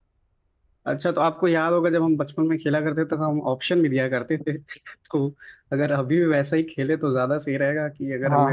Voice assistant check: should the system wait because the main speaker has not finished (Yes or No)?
No